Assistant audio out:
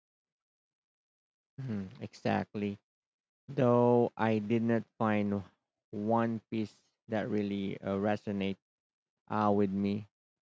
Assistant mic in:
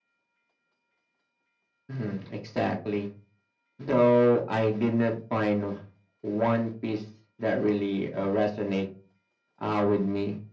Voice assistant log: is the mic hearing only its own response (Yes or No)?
Yes